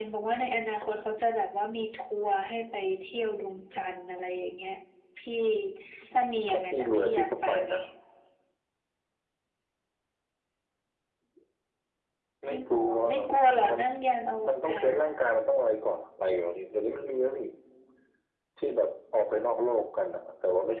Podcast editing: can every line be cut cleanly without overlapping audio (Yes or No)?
No